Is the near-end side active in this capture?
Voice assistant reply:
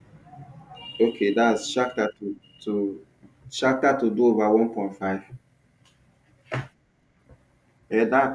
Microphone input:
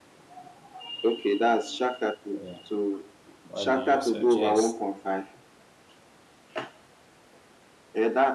Yes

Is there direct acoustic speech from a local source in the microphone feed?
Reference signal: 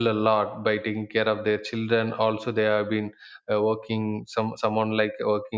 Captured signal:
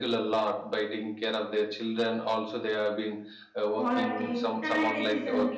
Yes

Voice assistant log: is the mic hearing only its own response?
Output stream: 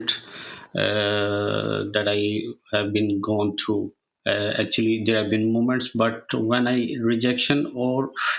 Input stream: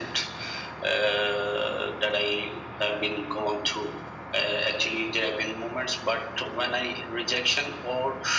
Yes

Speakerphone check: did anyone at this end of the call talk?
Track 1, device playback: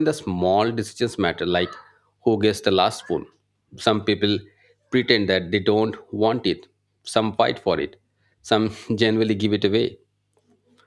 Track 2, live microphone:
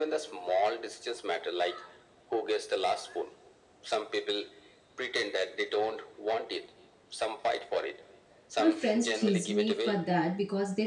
Yes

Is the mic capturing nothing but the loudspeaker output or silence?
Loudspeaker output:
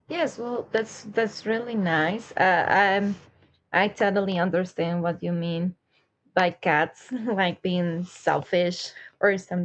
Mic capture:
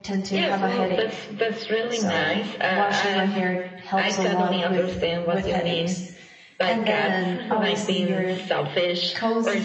No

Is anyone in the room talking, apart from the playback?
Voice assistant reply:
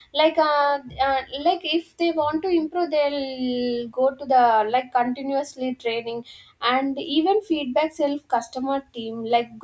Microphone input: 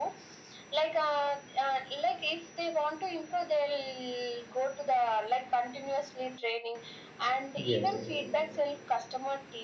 Yes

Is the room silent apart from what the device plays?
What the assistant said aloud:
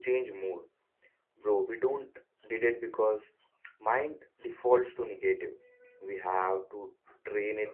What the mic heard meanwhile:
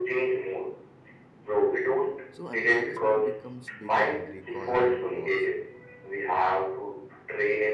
No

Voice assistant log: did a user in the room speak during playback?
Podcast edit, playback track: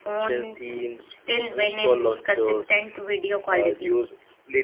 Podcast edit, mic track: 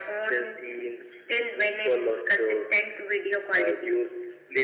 No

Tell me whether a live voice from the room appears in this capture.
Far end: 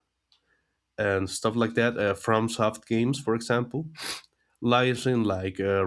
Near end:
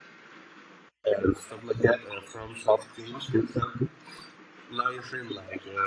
No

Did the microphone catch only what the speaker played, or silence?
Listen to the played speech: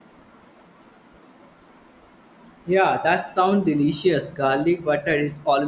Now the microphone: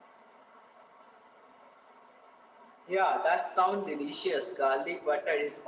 Yes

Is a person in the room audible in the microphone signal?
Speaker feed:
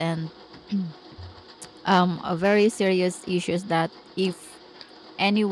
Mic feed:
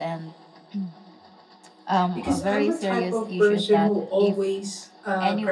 Yes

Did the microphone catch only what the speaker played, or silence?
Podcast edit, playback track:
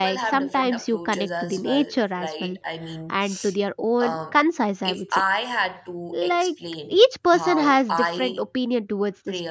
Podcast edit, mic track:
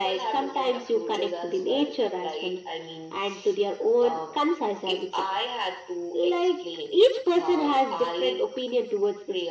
Yes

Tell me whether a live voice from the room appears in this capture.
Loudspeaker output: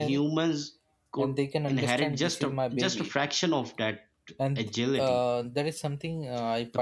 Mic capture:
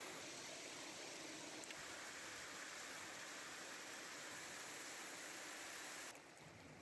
No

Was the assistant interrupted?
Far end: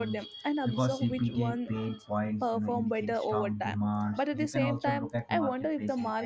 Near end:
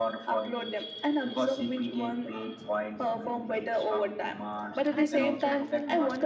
Yes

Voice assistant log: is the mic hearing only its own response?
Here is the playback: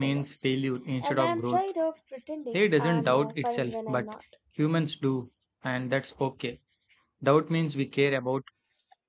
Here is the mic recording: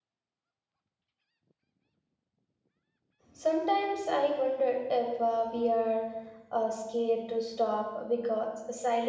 No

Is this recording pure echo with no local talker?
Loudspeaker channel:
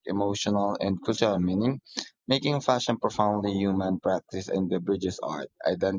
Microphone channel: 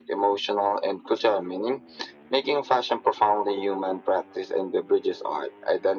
Yes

